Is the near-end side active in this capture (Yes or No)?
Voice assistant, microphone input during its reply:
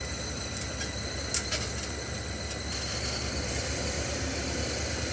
No